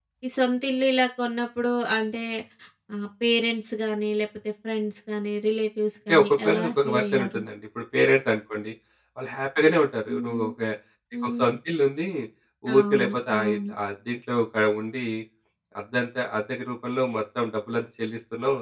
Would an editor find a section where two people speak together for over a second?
Yes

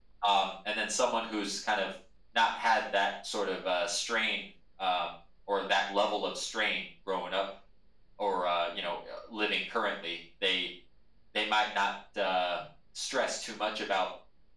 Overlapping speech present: No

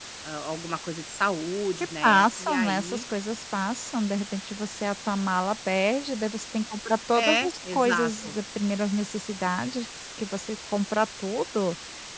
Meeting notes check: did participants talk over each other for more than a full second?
Yes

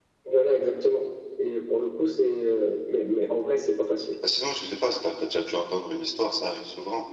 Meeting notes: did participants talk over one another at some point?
No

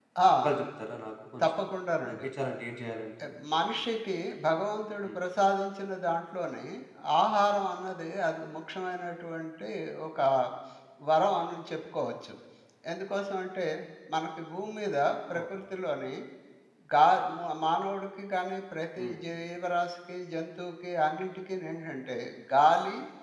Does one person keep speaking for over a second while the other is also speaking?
No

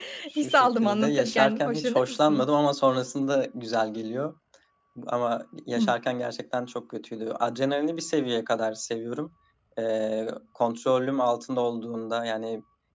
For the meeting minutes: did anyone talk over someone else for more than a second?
Yes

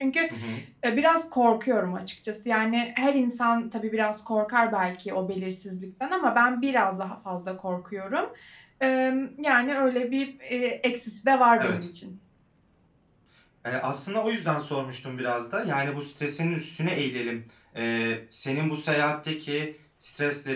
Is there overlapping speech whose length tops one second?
No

